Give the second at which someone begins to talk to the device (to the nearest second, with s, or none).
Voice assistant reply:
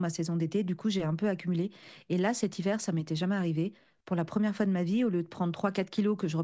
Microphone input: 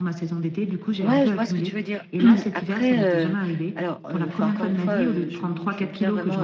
1 s